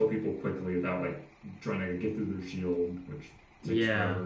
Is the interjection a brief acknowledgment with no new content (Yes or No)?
No